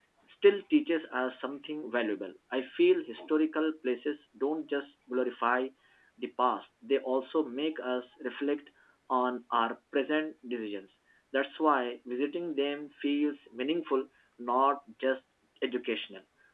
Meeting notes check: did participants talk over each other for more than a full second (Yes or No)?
No